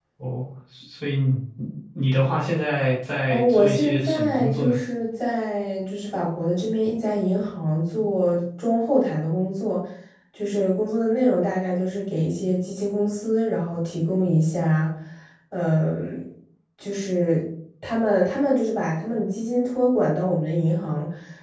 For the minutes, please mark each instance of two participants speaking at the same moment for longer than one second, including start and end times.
3.2-4.8

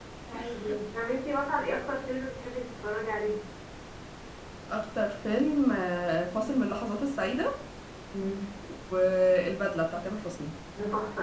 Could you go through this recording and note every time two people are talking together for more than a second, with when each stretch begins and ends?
none

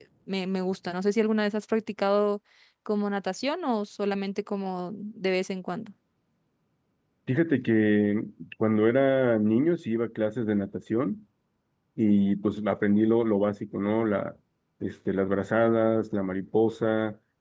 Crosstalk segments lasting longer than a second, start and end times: none

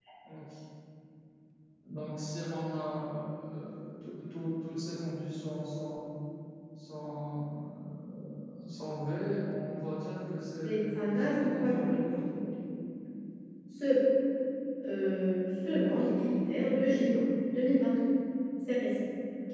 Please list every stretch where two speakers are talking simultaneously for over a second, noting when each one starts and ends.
10.7-12.3

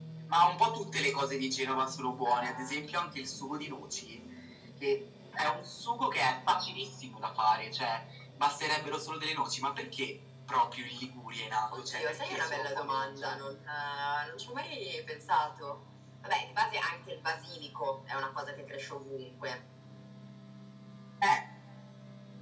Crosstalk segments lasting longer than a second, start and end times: 11.8-13.5

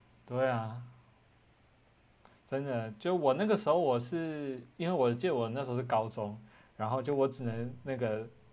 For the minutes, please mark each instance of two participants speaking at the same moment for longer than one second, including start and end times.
none

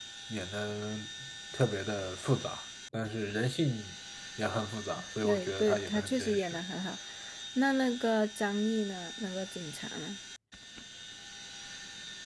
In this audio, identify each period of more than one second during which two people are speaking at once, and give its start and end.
5.2-6.6

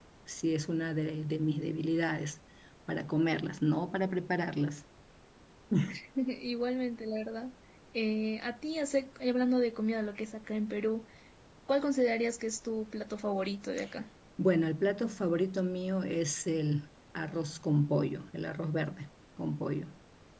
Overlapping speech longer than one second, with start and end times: none

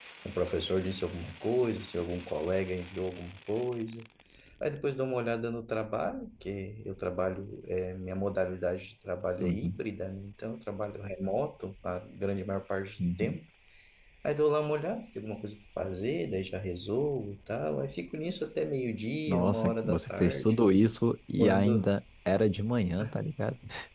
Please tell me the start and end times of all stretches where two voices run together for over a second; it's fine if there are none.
19.3-20.6

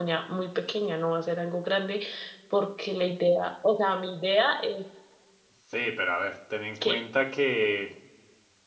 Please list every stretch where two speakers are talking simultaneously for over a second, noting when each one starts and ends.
none

